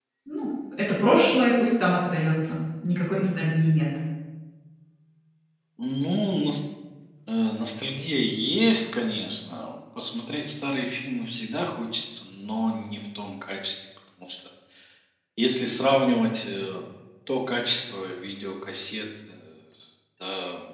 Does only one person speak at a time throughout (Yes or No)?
Yes